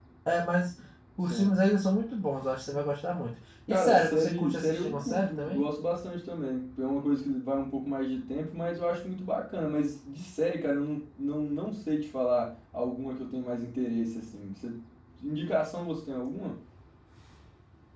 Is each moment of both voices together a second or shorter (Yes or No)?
No